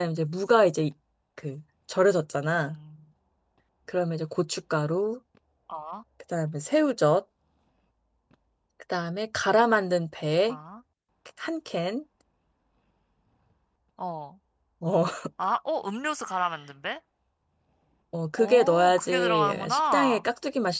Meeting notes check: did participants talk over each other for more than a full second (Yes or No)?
Yes